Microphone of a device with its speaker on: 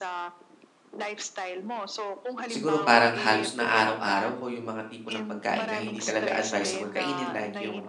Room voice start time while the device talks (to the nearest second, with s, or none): 2 s